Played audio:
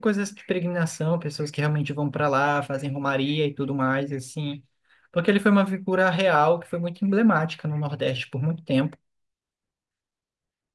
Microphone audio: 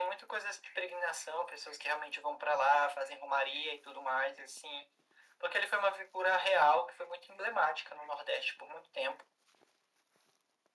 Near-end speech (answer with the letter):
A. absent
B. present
A